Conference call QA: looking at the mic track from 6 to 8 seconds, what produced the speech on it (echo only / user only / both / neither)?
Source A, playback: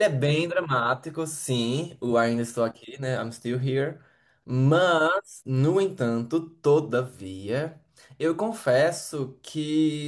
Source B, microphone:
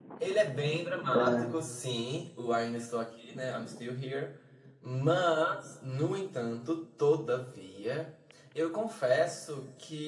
echo only